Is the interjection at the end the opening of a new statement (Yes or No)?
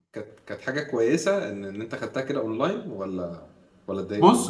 Yes